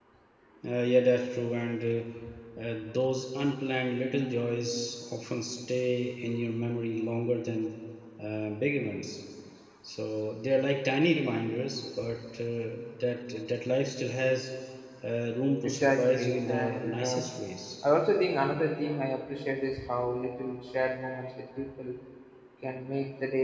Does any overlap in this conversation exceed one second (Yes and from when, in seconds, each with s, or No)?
Yes, from 15.6 s